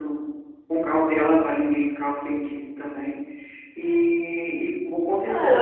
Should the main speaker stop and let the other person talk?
Yes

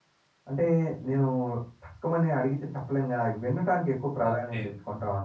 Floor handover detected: Yes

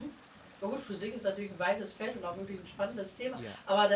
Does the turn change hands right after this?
No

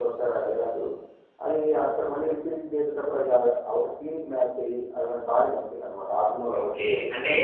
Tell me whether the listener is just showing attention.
No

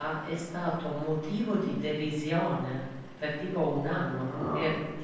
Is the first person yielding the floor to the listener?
No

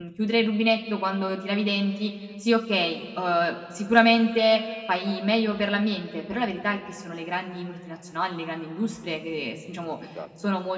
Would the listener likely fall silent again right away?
Yes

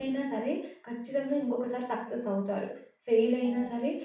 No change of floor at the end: Yes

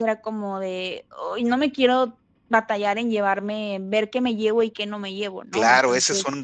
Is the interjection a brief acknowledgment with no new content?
No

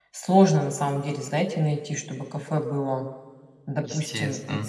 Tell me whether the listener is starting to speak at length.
No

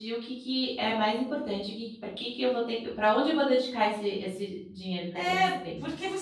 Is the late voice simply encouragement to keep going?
No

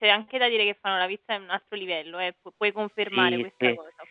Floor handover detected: Yes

